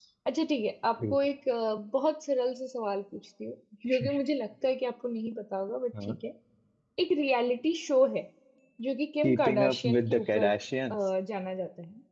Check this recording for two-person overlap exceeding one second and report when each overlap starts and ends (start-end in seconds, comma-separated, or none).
9.2-10.5